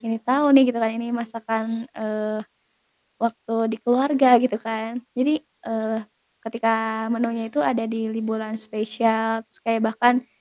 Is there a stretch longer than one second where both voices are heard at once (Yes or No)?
No